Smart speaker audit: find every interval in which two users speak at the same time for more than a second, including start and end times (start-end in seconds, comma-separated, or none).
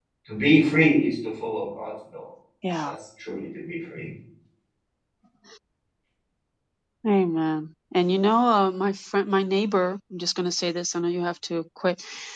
none